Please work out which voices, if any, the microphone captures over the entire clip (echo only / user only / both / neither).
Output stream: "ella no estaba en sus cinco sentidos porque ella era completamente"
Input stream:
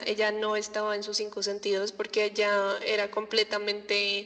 echo only